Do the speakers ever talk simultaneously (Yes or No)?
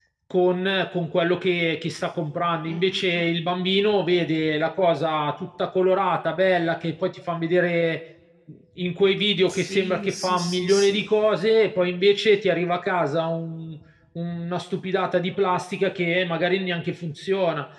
Yes